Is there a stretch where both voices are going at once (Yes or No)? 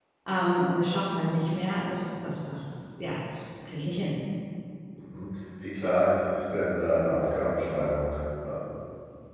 No